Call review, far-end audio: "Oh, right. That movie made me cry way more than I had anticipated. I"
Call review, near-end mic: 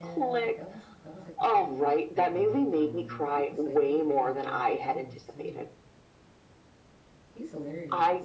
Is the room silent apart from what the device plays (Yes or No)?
No